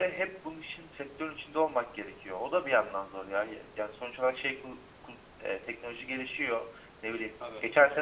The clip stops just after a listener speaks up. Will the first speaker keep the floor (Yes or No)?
Yes